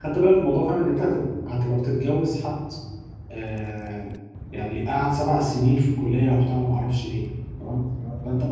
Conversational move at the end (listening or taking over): listening